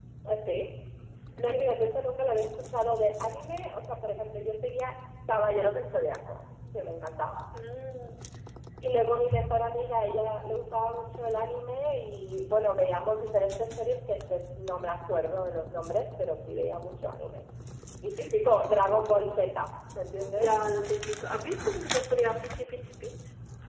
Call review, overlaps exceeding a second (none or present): none